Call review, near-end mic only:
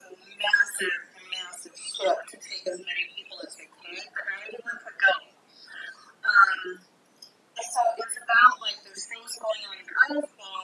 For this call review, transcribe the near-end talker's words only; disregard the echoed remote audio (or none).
none